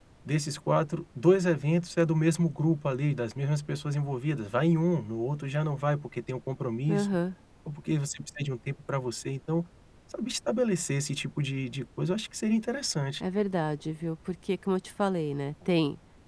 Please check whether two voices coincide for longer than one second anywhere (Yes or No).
No